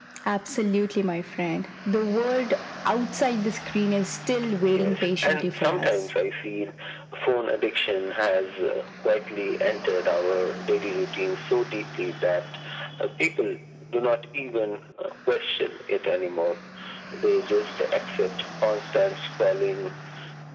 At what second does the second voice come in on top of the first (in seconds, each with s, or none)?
4.7 s